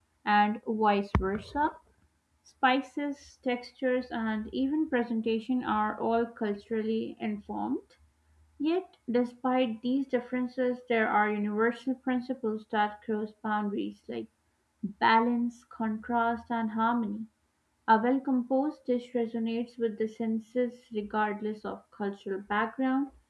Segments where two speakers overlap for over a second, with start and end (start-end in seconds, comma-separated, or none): none